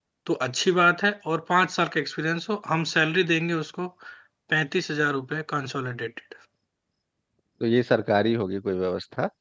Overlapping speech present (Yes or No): No